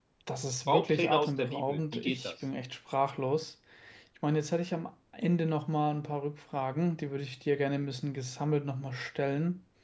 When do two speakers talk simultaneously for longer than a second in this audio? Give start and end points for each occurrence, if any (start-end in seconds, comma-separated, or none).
0.7-2.3